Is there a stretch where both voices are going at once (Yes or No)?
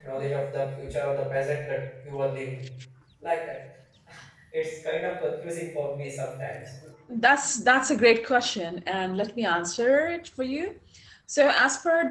No